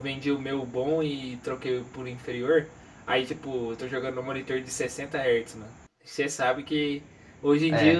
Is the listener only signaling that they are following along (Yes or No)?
Yes